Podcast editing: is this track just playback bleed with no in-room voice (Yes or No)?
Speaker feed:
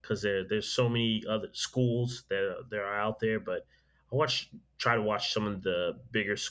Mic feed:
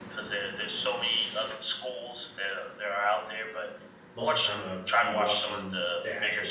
No